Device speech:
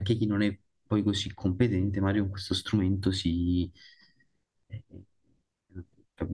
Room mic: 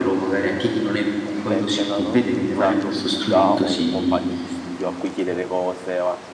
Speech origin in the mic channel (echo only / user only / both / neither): both